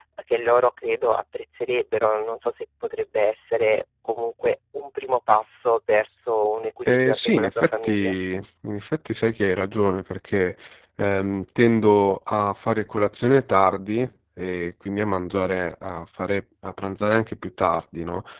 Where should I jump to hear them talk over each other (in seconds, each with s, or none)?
6.8 s